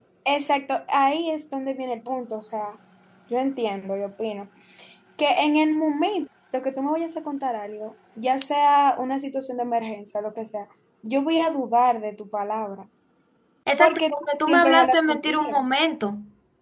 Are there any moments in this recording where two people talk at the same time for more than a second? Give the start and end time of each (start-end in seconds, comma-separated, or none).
13.8-15.6